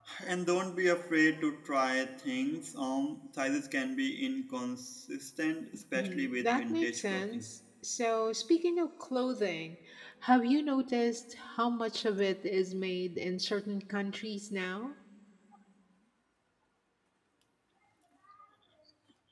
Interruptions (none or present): present